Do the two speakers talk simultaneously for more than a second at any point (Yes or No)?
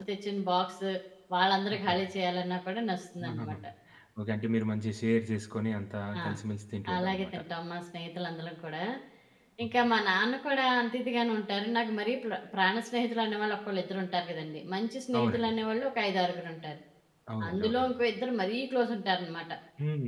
No